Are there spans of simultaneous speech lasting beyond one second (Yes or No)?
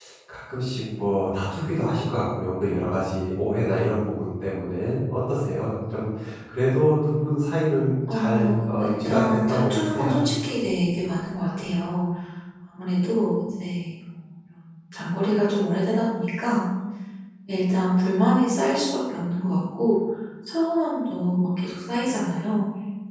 Yes